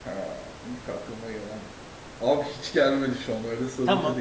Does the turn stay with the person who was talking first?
No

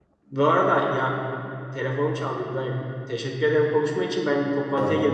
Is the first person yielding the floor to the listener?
No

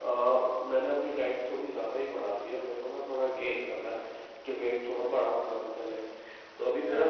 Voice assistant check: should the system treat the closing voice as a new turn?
No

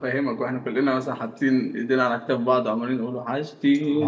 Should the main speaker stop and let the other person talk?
Yes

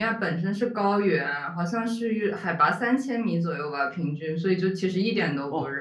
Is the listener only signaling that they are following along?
No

